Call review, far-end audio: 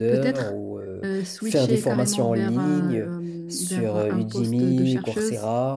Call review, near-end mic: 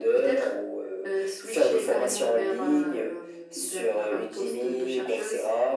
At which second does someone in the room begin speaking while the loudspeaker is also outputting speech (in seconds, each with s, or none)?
none